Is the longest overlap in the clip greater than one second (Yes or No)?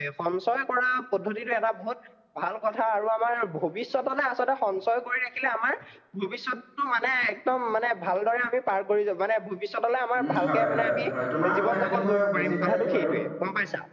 Yes